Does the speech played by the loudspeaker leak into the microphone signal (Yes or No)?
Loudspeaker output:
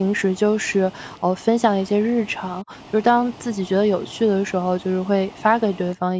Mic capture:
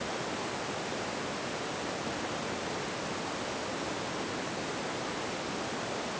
No